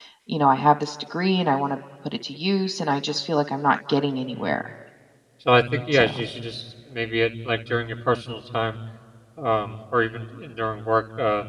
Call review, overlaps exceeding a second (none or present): none